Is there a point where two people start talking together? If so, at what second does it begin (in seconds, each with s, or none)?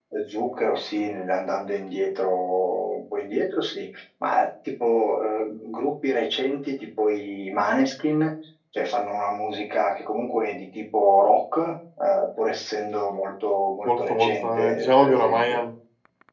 13.8 s